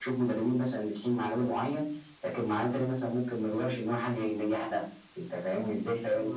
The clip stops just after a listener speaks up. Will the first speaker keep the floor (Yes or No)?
Yes